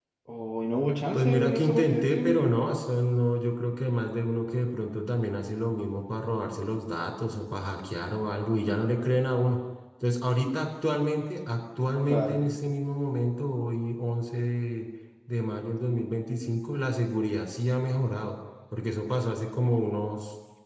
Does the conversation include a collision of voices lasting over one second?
Yes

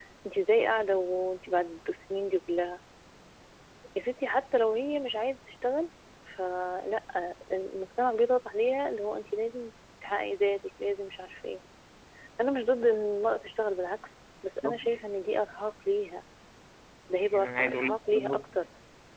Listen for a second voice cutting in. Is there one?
Yes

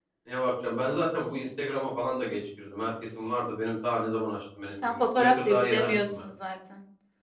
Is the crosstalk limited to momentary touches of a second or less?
No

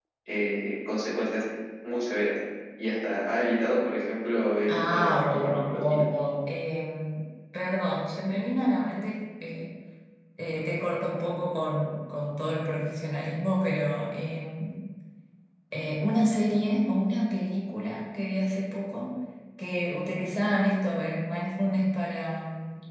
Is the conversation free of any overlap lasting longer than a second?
No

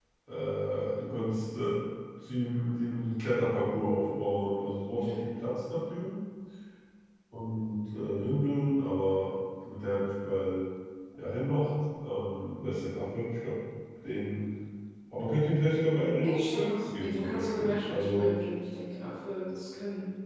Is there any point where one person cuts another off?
Yes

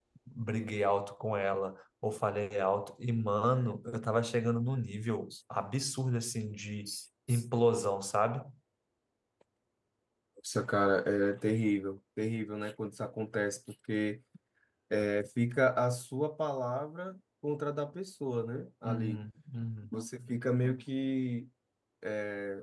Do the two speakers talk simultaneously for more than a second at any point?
No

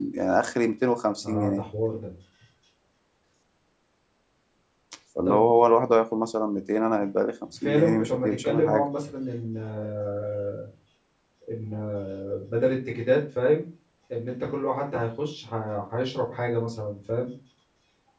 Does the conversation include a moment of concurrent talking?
Yes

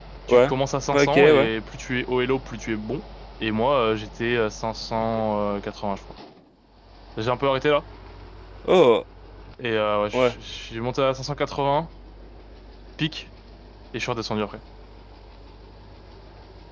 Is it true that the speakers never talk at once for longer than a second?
Yes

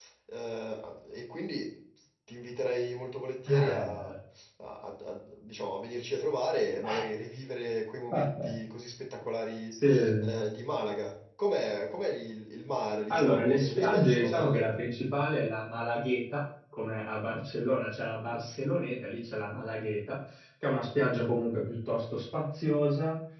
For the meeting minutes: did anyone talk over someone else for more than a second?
Yes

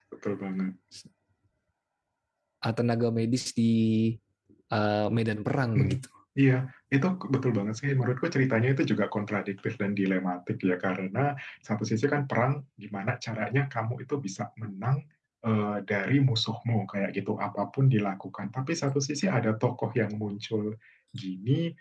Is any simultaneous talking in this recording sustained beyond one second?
No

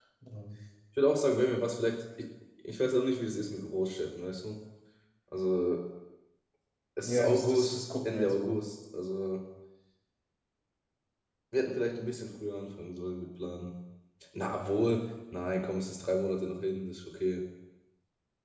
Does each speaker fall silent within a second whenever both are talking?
No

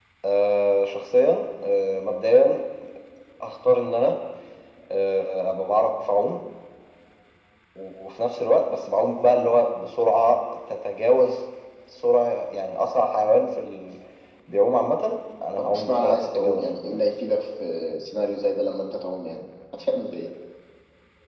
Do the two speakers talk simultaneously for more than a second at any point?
Yes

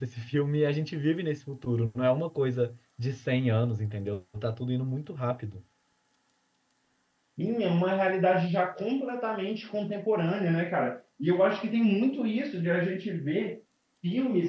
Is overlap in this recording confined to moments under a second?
Yes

